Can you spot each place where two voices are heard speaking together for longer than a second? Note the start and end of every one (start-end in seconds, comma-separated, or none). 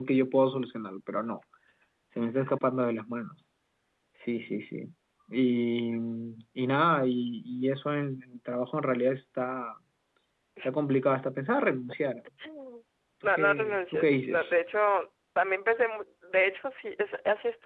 13.2-14.5